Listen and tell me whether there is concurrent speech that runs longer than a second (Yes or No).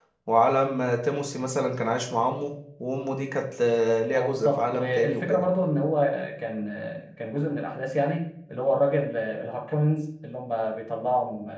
Yes